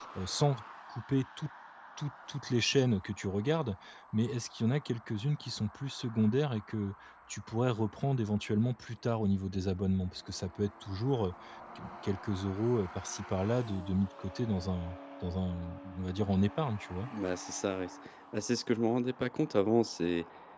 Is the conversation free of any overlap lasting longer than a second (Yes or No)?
Yes